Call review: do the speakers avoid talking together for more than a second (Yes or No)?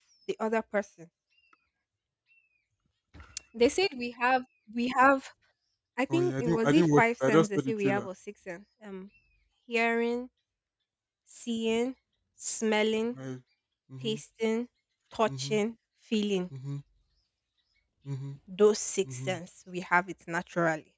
No